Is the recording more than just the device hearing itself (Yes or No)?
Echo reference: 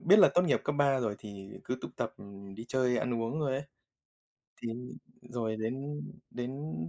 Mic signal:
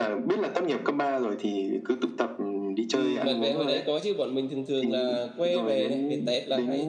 Yes